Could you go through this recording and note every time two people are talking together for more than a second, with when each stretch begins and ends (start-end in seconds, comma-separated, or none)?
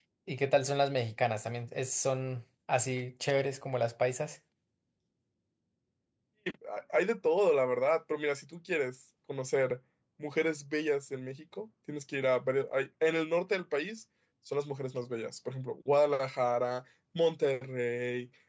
none